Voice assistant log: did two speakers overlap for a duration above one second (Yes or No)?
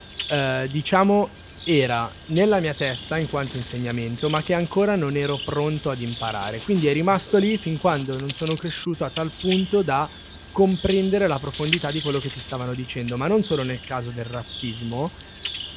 No